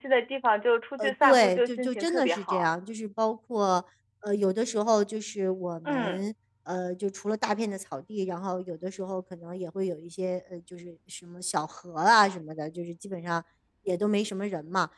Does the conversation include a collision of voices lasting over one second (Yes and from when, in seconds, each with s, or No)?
Yes, from 1.0 s